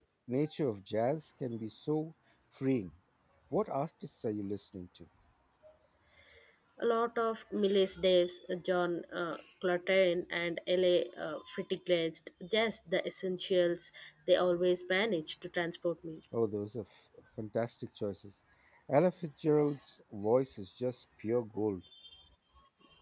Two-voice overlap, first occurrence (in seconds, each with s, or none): none